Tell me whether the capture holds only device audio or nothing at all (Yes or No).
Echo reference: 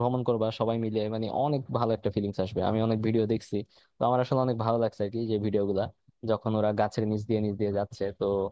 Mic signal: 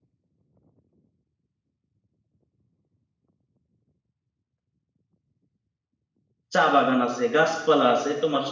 No